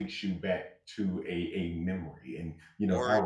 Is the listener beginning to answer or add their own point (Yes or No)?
No